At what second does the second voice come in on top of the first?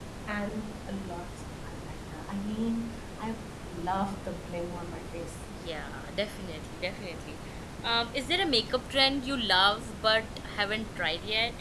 none

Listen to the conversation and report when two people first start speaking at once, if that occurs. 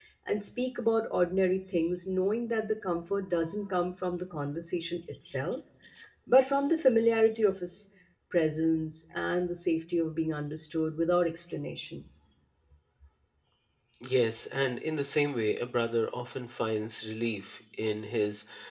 none

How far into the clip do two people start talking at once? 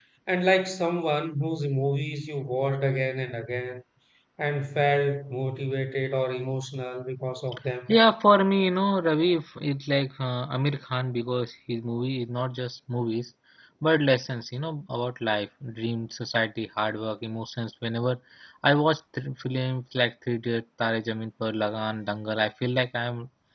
none

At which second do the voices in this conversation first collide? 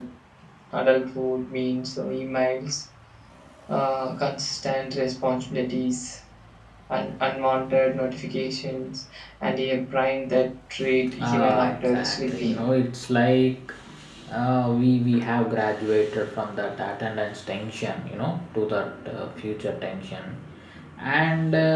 11.1 s

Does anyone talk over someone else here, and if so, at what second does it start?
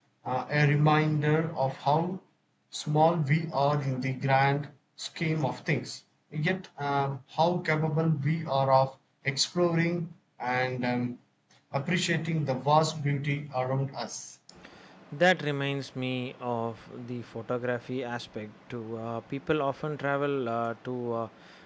none

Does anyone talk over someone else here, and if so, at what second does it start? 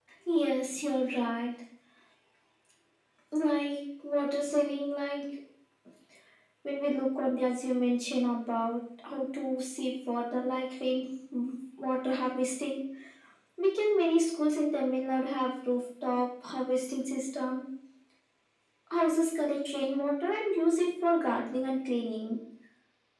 none

